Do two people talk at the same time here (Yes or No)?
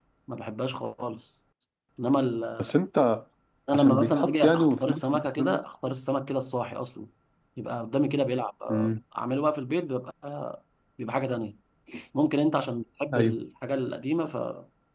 Yes